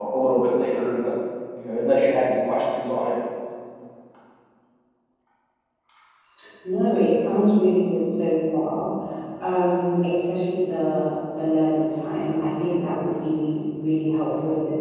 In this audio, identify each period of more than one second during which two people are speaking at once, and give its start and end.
none

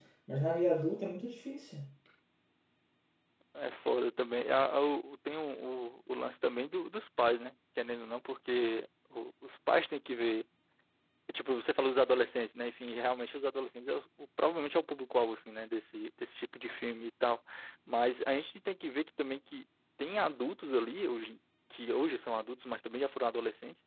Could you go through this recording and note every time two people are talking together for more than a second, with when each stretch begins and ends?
none

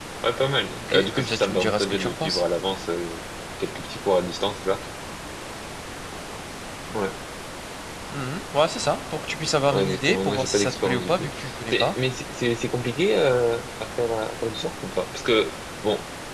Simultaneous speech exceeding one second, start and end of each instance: 0.8-2.4, 9.7-11.9

